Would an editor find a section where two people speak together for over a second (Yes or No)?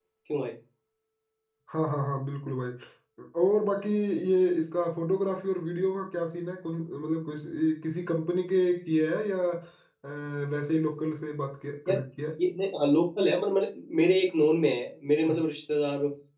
No